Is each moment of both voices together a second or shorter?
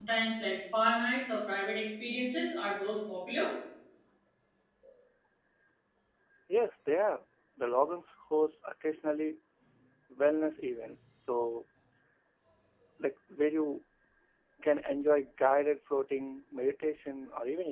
Yes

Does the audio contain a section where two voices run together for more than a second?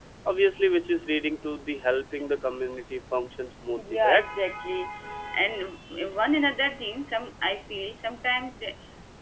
No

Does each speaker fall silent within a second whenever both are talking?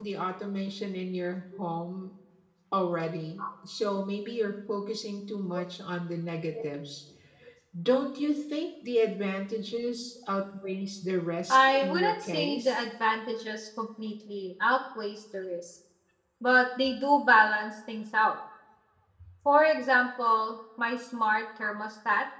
No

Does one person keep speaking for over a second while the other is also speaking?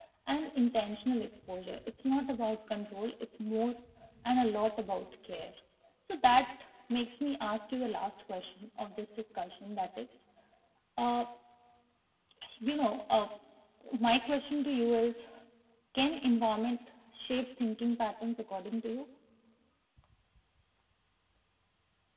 No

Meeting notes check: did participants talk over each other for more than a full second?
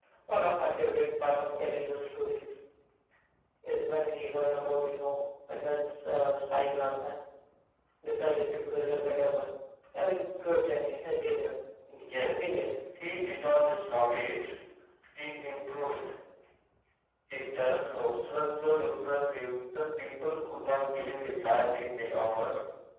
No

